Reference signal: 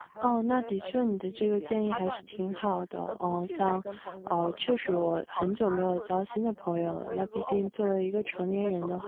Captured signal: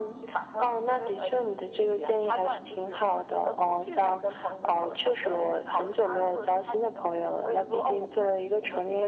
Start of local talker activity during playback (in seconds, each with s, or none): none